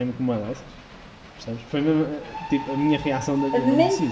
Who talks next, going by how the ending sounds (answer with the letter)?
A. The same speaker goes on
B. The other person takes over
B